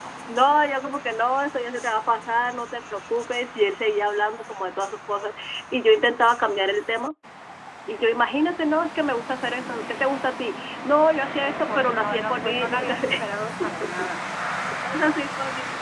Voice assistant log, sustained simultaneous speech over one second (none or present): present